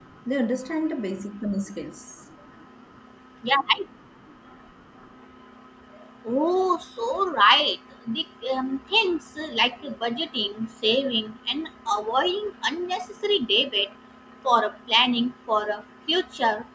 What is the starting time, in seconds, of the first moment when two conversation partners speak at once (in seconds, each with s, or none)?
none